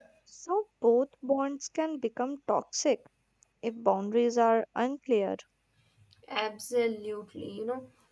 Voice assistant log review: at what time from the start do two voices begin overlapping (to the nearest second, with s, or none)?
none